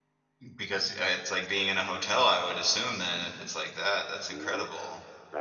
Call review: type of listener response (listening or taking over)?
taking over